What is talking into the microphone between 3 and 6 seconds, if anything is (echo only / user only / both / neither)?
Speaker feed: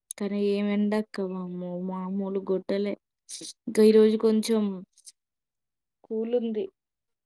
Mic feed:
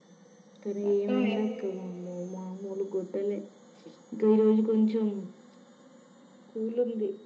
echo only